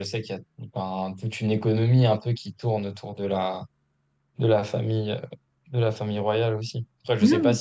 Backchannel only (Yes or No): Yes